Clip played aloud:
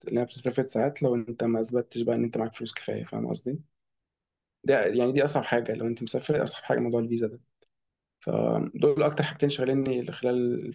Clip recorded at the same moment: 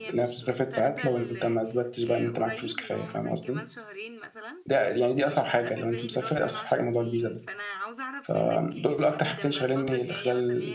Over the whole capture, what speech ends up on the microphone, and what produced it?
both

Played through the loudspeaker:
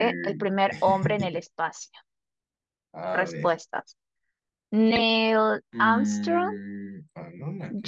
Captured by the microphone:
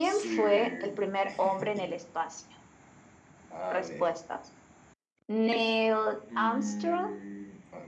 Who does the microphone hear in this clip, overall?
echo only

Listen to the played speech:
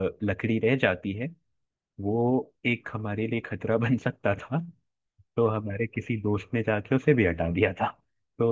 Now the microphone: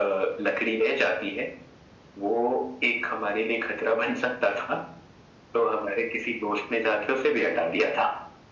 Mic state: echo only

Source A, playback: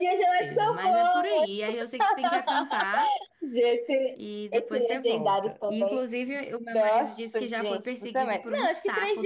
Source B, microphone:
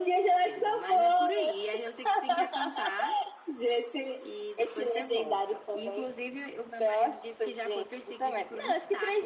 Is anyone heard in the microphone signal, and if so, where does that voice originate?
echo only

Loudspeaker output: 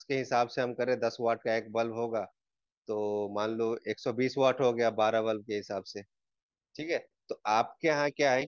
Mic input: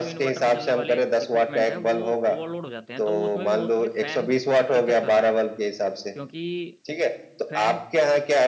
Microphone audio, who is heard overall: both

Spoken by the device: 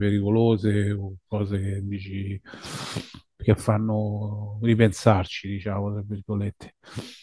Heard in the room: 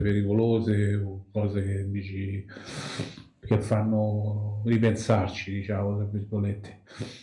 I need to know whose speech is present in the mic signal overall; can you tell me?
echo only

